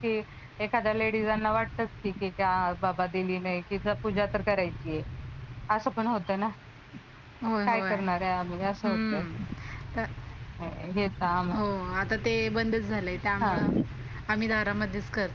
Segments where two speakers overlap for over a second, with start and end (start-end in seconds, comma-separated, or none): none